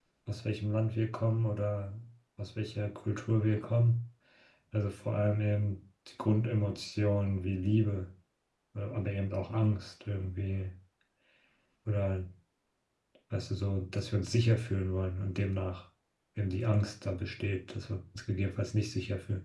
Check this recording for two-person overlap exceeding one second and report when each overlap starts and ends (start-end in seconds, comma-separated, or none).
none